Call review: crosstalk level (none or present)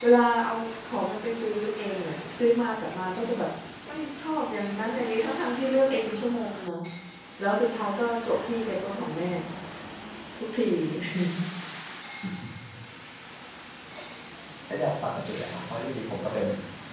none